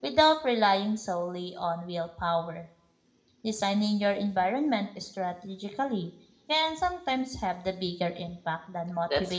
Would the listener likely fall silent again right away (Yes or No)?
No